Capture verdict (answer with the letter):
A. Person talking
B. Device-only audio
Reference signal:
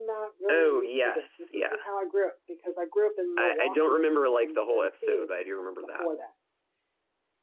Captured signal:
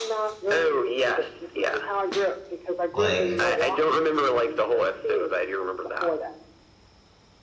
A